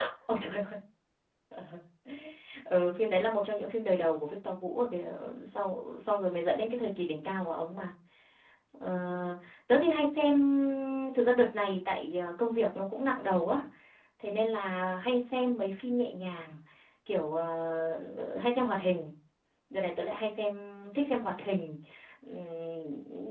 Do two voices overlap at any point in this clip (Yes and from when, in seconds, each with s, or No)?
No